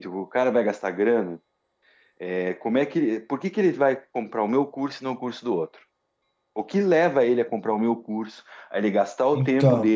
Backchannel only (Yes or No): Yes